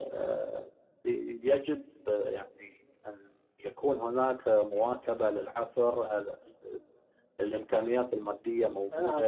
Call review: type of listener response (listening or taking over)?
taking over